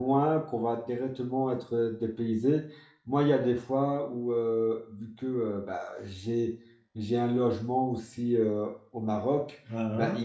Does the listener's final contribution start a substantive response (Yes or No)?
No